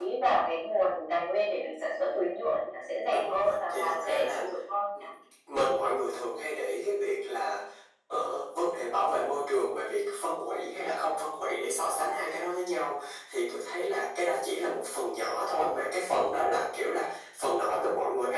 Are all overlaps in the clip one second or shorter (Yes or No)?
No